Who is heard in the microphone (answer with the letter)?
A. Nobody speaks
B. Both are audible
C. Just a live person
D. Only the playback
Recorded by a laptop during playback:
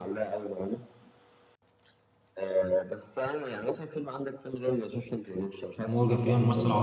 B